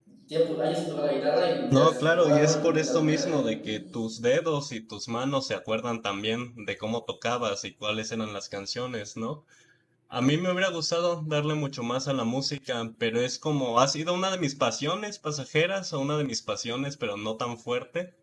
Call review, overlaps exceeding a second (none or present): present